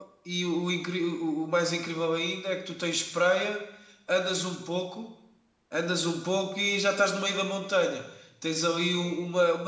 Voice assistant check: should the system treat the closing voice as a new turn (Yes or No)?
No